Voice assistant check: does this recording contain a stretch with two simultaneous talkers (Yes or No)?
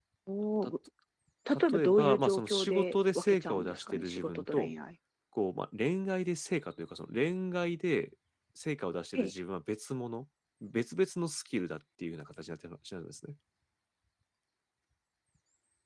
Yes